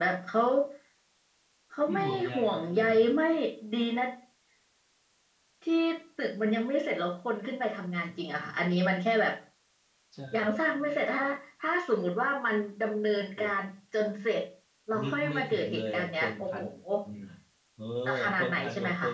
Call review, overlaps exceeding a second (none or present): present